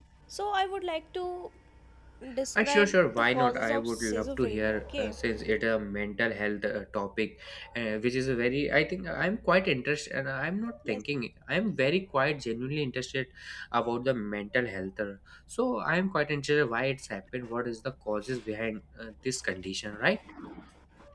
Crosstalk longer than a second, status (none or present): present